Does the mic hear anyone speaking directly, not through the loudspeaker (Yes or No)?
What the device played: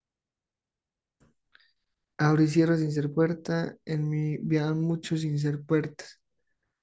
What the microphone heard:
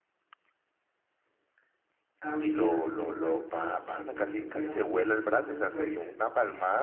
Yes